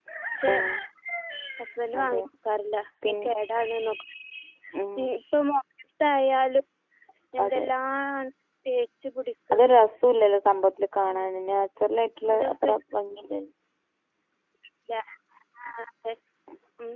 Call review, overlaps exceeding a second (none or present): none